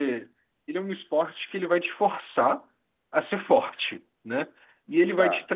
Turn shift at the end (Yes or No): No